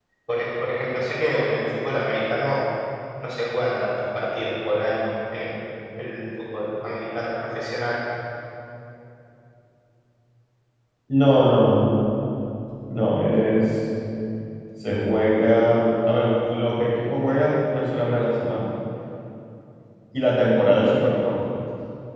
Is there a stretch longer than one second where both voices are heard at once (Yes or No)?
No